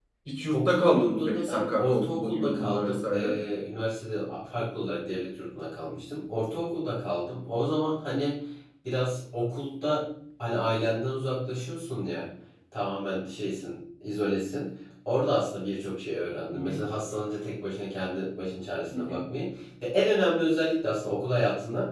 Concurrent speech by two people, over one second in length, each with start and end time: 0.5-3.4

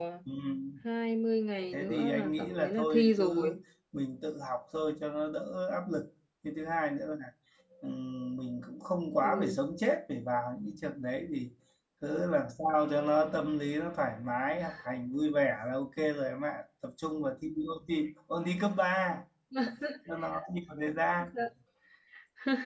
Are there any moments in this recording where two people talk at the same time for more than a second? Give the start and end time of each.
1.7-3.5

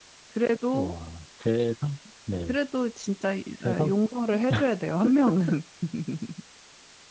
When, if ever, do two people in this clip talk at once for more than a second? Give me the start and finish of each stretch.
none

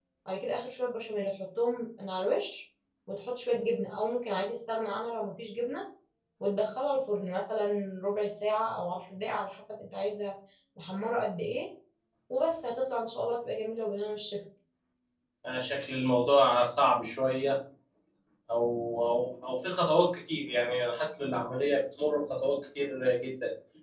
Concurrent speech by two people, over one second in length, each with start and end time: none

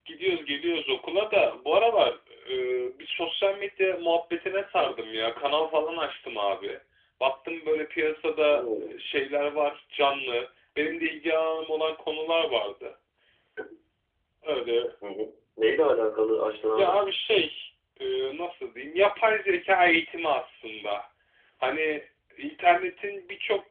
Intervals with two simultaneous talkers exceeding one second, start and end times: none

